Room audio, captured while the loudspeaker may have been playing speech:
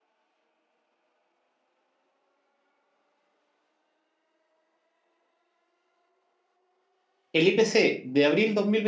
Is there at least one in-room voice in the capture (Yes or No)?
Yes